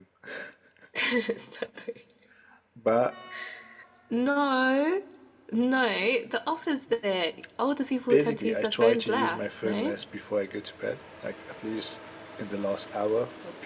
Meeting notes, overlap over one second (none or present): present